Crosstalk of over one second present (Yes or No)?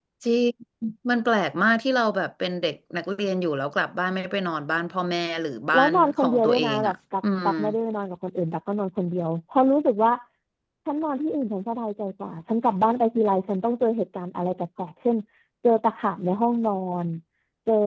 Yes